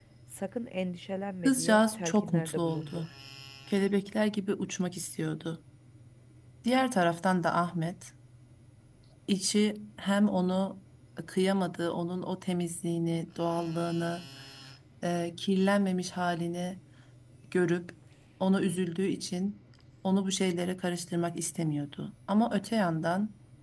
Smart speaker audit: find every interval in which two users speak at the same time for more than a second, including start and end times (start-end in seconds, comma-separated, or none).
1.4-3.1